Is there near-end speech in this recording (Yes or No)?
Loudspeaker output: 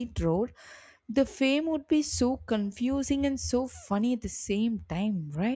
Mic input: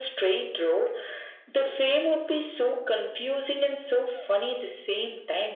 No